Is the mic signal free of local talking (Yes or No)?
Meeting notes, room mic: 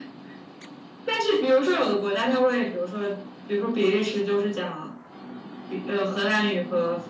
Yes